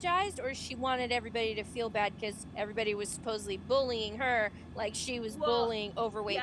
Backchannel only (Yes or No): No